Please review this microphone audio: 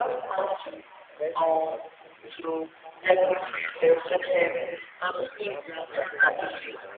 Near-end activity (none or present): present